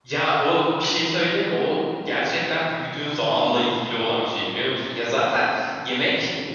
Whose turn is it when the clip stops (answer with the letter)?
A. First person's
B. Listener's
A